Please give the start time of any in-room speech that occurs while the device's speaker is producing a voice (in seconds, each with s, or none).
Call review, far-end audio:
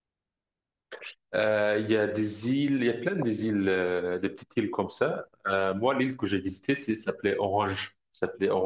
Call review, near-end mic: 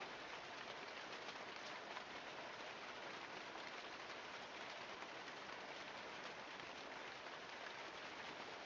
none